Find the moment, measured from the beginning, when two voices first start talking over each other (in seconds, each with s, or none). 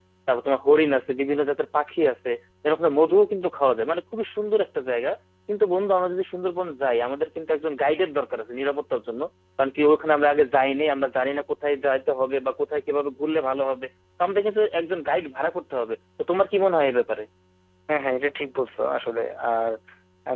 none